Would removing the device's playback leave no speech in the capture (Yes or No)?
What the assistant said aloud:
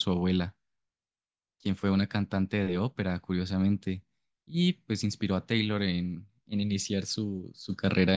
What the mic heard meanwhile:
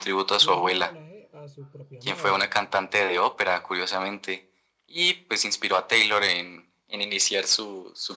No